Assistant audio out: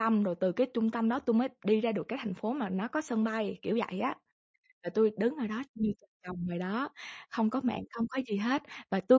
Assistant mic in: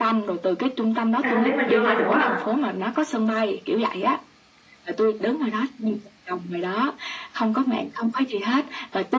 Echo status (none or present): present